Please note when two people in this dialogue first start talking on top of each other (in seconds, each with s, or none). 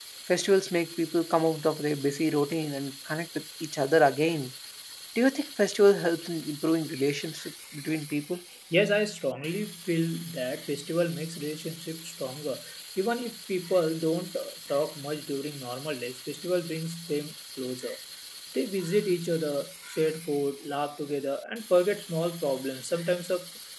none